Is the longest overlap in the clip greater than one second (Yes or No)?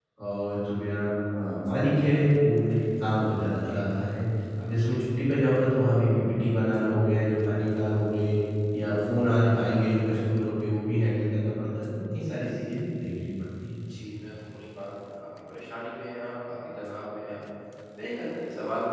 No